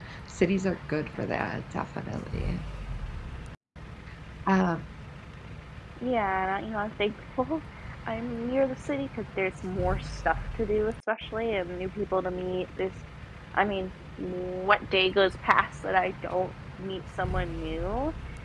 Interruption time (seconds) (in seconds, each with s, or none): none